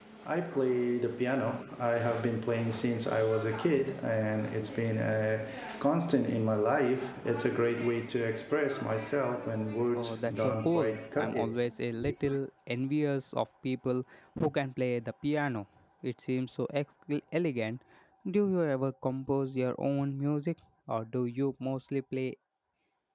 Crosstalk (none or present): present